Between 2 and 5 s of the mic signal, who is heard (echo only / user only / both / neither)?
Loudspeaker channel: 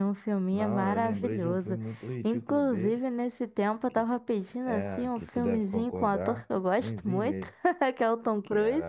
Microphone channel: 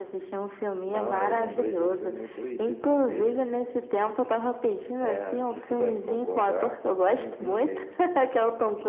echo only